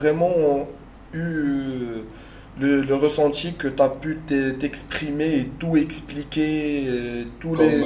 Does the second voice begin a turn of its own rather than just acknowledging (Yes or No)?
No